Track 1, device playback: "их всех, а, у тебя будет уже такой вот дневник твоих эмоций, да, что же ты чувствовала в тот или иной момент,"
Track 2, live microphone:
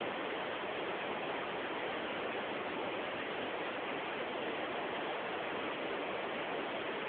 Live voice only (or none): none